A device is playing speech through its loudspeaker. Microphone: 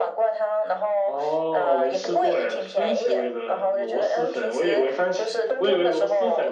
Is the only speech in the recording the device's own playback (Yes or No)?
No